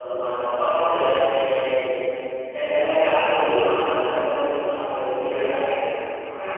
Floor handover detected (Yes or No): Yes